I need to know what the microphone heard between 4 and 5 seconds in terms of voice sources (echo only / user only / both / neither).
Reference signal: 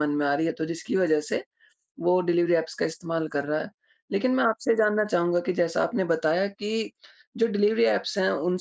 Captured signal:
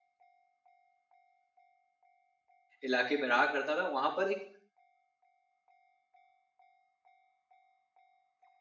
user only